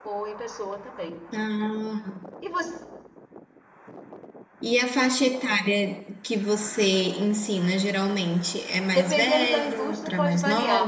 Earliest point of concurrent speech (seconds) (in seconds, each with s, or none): 8.8 s